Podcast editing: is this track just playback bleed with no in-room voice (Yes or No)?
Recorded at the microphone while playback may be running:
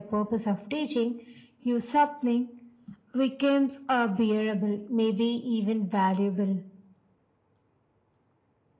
Yes